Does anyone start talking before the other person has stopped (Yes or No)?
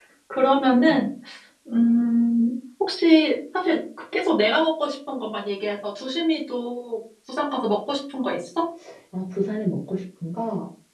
No